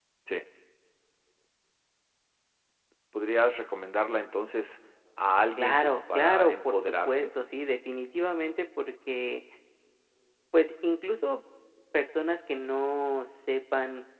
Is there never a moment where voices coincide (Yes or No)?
No